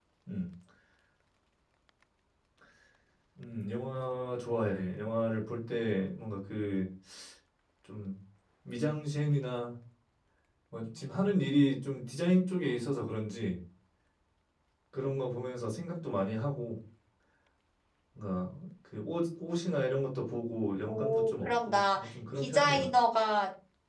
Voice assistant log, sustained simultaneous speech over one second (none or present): present